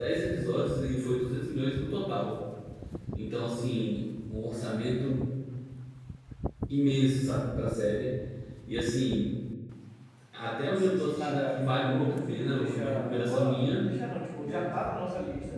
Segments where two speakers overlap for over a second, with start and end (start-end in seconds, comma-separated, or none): 10.7-13.9